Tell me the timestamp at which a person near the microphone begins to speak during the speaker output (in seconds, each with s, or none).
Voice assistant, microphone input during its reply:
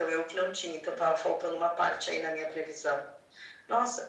none